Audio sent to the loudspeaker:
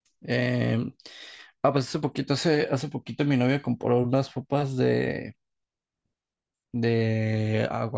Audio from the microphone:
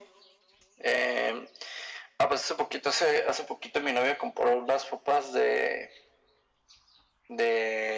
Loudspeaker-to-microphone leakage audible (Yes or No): Yes